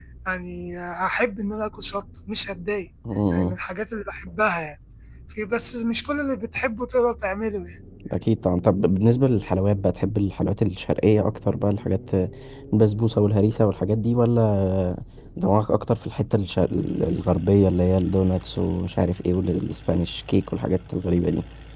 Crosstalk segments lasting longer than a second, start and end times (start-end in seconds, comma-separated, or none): none